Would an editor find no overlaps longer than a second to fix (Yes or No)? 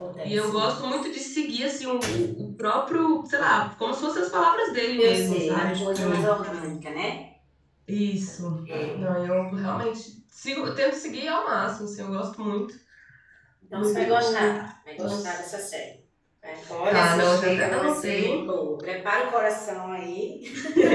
No